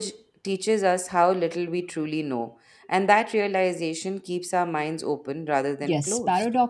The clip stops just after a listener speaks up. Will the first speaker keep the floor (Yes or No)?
No